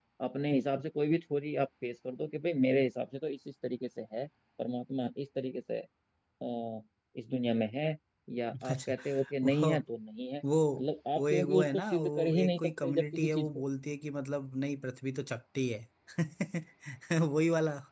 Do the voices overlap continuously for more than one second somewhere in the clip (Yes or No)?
Yes